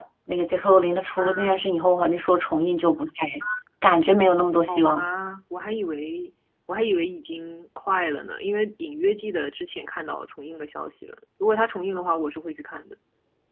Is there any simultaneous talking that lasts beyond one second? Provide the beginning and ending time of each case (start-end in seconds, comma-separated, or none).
none